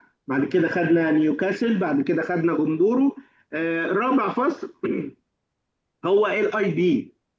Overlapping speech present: No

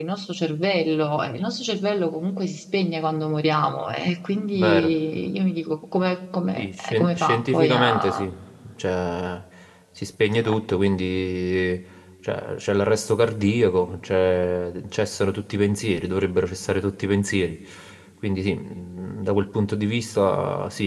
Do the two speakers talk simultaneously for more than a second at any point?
Yes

